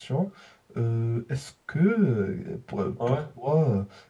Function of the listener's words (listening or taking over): listening